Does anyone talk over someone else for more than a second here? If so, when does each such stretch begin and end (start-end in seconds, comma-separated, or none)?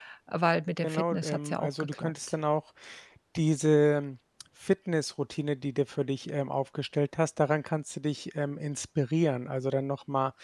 0.8-2.1